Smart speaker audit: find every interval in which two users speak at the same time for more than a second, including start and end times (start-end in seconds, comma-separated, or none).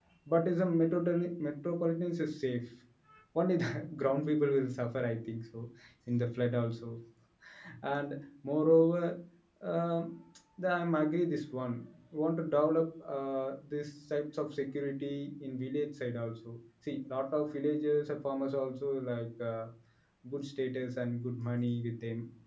none